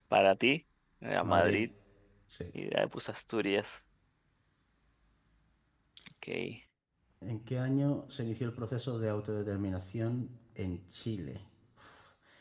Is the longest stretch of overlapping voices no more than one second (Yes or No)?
Yes